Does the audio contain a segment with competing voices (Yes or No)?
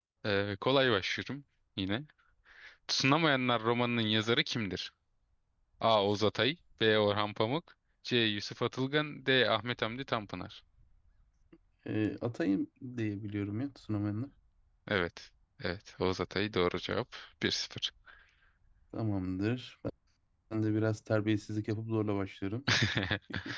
No